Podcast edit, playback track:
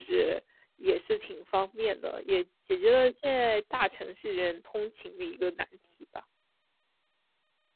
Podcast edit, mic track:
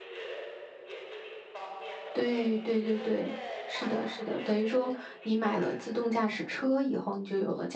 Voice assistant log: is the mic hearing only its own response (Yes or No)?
No